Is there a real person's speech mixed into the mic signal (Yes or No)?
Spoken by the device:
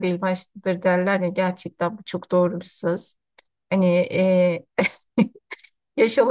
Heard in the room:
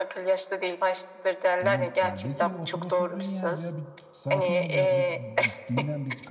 Yes